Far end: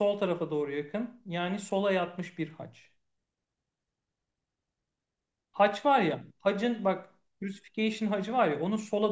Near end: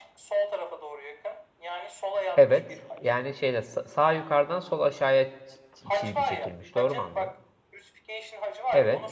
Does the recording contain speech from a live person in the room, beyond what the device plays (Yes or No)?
Yes